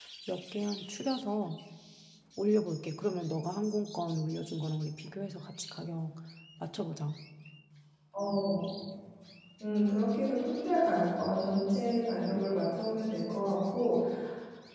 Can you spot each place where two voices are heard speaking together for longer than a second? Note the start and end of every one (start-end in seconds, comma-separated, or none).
none